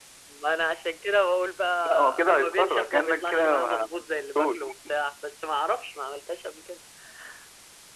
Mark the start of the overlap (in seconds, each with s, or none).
1.8 s